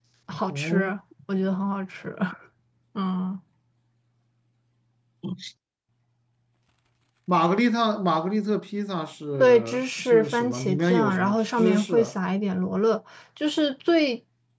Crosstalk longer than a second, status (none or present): present